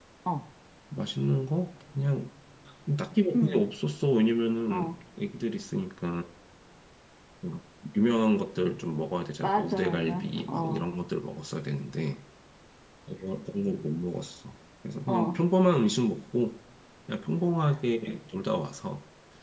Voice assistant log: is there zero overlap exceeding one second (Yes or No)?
No